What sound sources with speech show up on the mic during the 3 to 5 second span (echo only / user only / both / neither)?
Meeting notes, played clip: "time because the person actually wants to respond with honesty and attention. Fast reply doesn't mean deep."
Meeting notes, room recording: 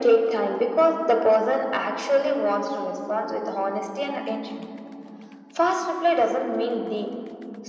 echo only